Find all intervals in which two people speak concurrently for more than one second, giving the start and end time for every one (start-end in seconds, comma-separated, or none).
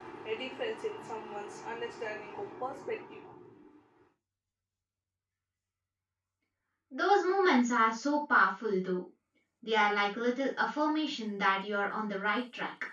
none